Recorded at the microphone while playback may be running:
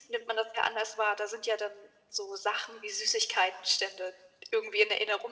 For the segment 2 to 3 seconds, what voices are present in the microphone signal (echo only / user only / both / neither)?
echo only